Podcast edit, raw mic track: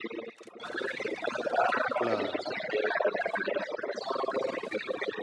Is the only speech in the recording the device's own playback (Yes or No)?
No